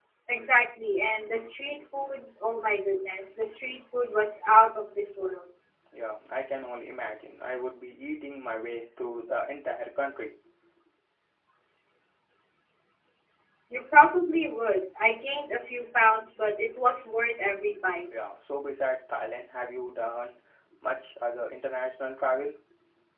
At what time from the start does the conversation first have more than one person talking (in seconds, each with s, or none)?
none